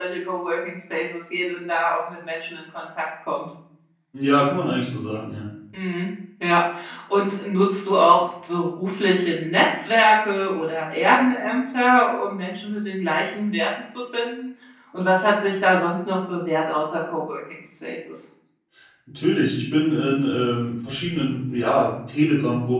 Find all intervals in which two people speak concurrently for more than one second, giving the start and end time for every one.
none

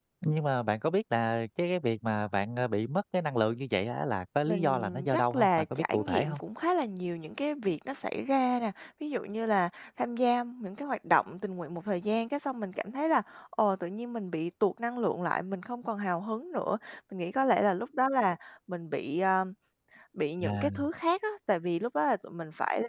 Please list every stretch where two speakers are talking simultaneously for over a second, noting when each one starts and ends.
4.5-6.4

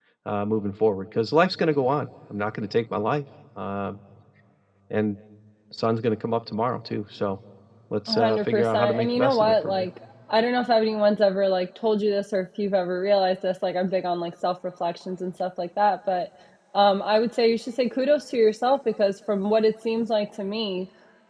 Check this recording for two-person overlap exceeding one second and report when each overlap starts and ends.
8.1-9.9

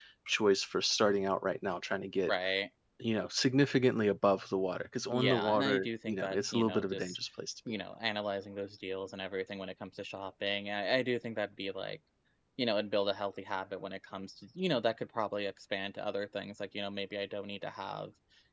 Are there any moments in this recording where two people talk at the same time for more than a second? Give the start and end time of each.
5.1-7.2

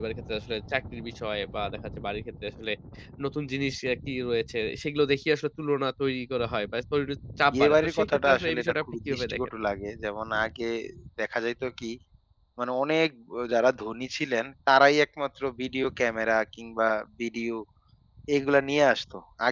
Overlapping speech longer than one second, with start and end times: 7.5-9.5

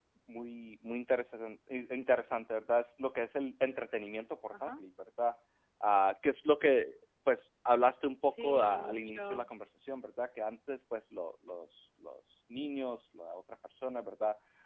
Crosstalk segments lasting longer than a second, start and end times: 8.2-9.4

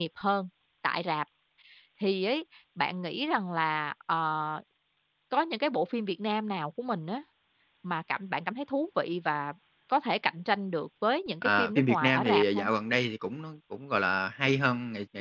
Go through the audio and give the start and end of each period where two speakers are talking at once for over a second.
11.4-12.7

